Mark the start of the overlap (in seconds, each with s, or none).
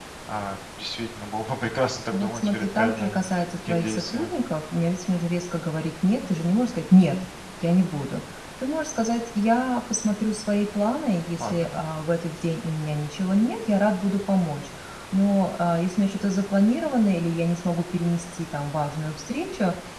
2.1 s